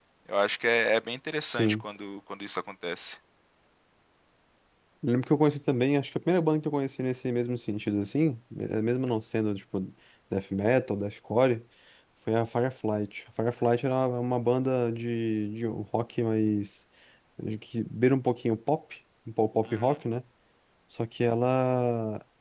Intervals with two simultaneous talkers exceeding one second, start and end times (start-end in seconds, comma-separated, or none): none